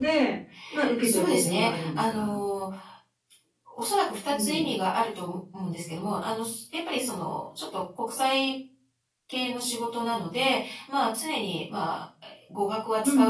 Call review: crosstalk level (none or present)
present